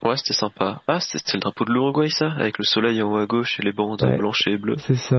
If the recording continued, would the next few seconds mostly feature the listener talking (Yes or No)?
Yes